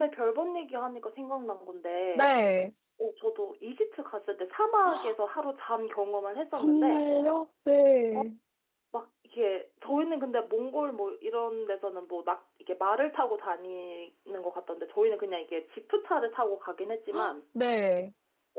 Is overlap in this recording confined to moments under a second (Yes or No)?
Yes